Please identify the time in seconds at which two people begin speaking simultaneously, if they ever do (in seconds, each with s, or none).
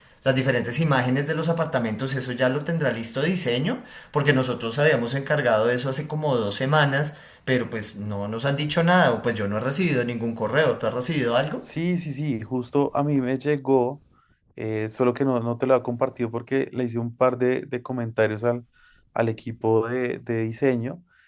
none